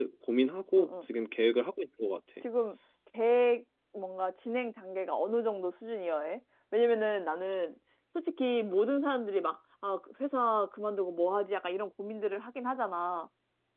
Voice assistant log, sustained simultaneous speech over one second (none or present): none